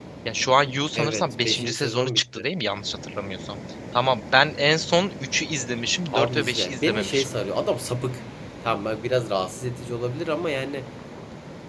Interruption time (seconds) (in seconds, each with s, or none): 1.0 s